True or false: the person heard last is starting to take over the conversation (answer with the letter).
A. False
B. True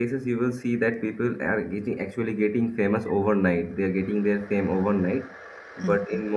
A